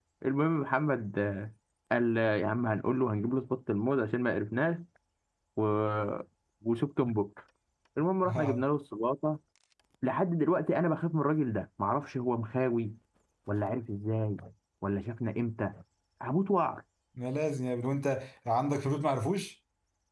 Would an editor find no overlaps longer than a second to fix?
Yes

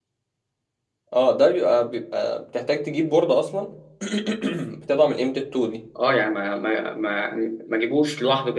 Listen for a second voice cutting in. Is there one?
No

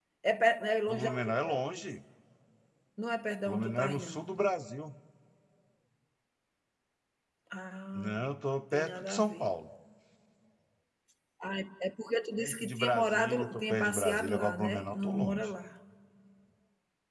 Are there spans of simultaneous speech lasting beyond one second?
Yes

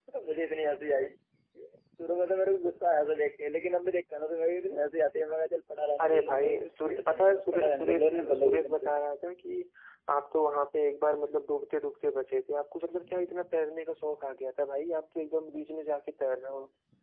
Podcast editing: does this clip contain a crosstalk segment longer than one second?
Yes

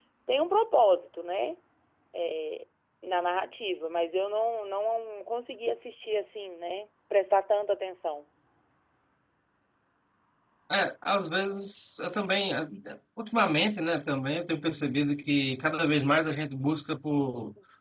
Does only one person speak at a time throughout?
Yes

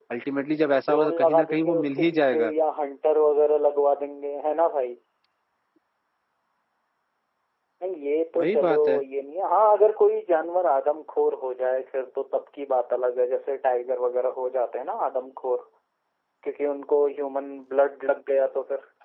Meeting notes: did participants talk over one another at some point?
Yes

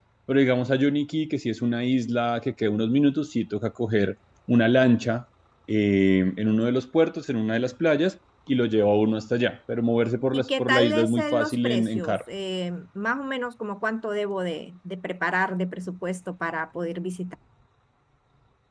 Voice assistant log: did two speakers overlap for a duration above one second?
Yes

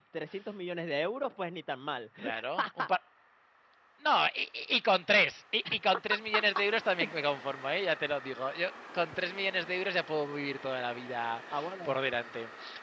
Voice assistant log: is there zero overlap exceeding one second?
Yes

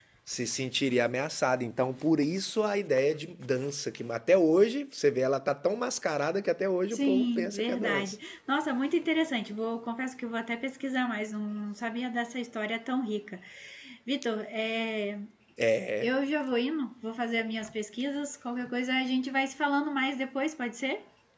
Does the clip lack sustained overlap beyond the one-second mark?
No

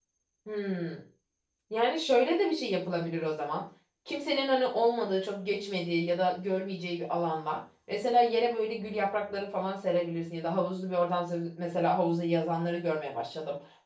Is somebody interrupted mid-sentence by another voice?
No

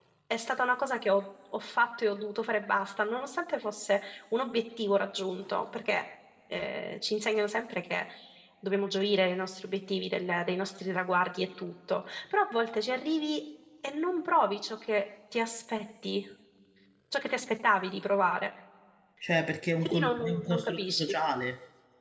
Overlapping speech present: Yes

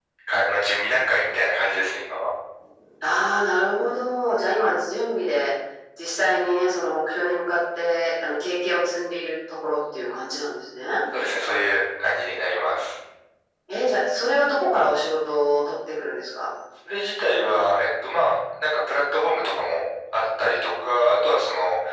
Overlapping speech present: No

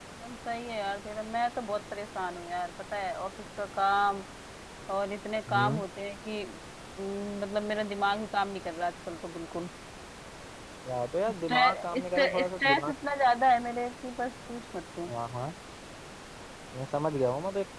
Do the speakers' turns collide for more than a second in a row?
Yes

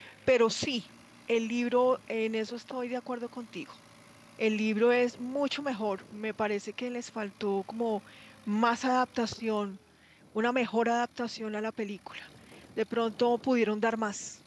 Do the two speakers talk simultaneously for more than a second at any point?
No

